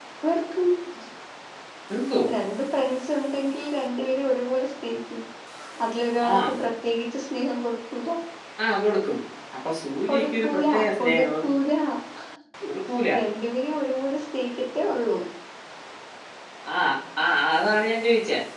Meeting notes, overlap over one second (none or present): present